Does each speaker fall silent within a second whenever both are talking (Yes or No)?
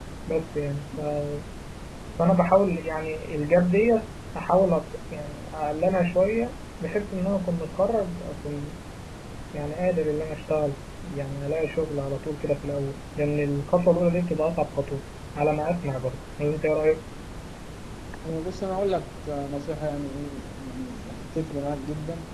Yes